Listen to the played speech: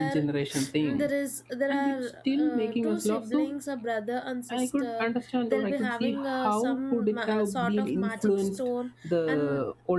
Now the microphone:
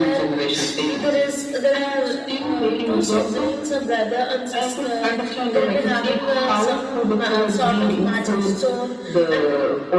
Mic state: echo only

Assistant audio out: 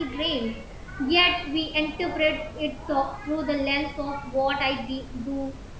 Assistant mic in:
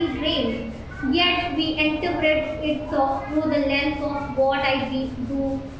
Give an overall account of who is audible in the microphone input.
echo only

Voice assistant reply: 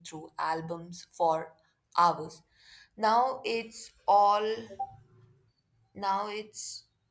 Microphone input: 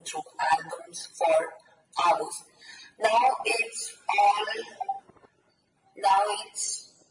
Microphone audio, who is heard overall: echo only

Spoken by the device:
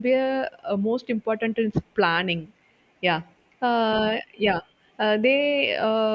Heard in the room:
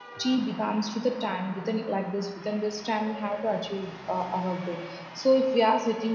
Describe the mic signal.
user only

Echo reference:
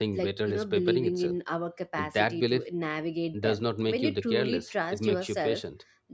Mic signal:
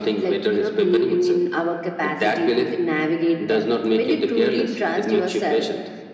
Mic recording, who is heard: echo only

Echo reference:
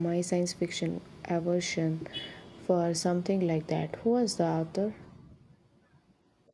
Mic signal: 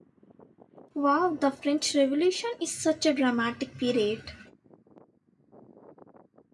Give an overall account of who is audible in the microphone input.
user only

